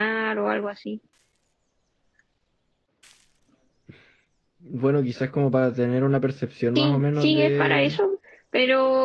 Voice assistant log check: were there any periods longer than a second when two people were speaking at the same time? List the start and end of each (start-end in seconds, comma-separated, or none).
6.8-8.0